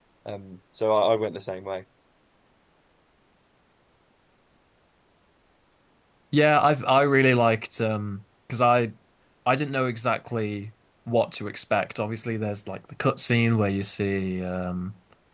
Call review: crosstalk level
none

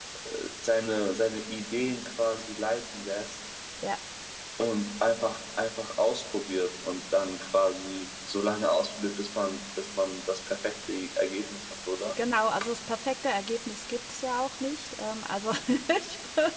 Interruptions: none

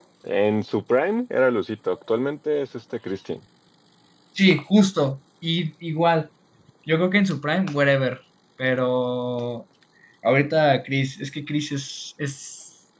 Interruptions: none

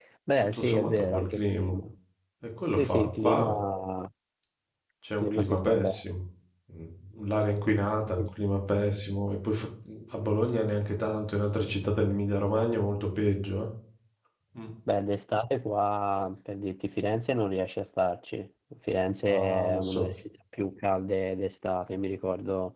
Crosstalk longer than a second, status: present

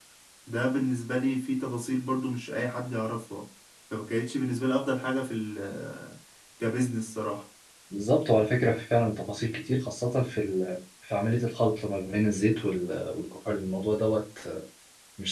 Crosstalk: none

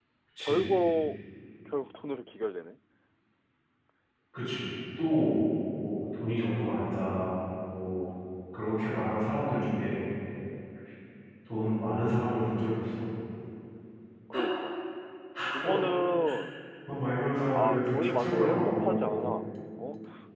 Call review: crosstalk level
present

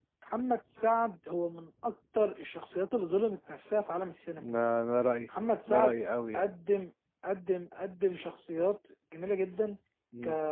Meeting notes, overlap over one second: none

